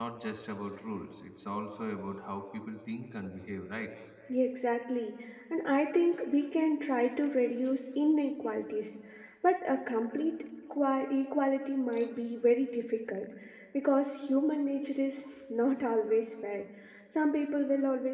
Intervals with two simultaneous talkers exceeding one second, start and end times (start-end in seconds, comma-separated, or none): none